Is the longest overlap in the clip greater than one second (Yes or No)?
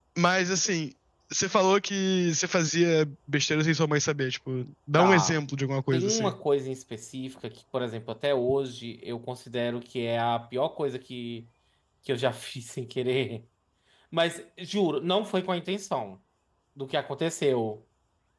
No